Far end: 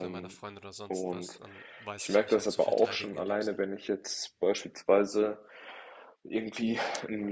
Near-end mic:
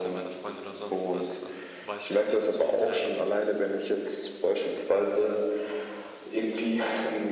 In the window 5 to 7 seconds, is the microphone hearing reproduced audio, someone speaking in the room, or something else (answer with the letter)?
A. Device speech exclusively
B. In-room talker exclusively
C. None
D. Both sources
A